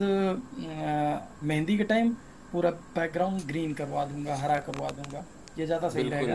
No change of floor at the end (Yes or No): No